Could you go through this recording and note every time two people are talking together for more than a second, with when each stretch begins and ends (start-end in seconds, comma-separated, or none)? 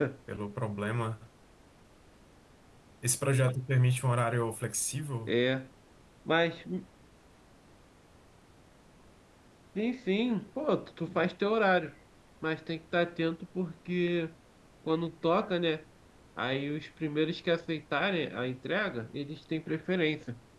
none